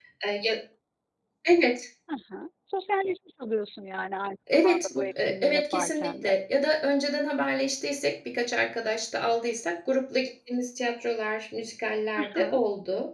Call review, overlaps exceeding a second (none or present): present